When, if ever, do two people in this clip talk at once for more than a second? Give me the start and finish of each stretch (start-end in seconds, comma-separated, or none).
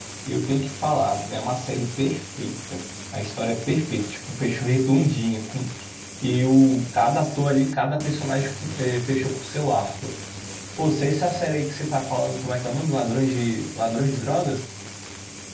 none